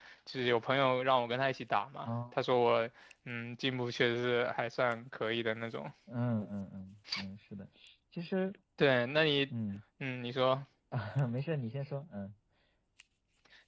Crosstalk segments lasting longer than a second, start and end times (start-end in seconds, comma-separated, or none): none